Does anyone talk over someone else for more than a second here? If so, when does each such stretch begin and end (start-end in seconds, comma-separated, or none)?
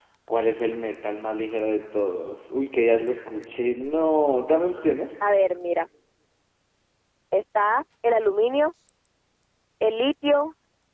none